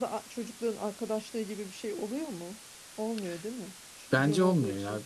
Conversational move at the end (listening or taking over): taking over